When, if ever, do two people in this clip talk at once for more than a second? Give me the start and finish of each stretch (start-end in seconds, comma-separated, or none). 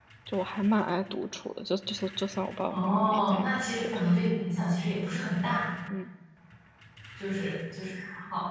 2.7-4.0